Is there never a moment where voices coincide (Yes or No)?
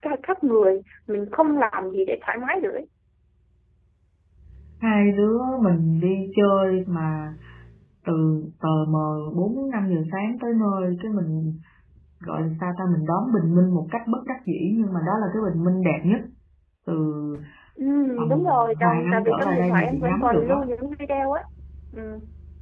No